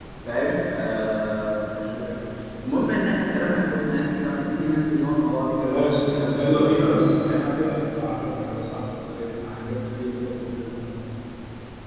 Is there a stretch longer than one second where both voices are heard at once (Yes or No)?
Yes